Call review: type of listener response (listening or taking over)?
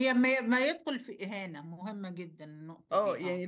taking over